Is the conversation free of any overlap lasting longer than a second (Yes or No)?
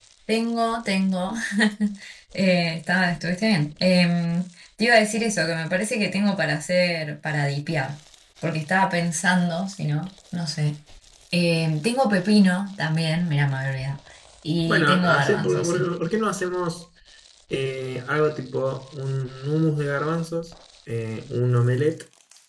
No